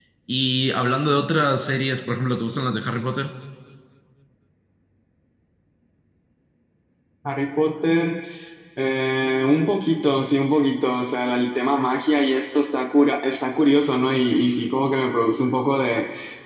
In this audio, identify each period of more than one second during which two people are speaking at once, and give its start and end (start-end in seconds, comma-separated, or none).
none